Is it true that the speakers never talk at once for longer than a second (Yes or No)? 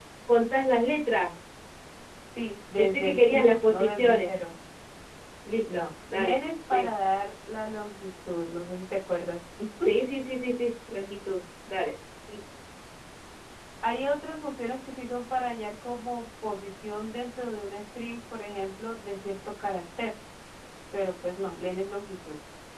No